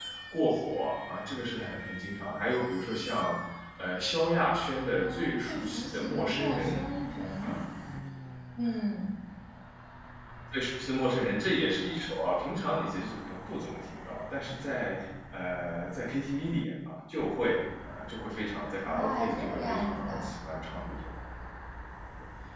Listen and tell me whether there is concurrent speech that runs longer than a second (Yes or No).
Yes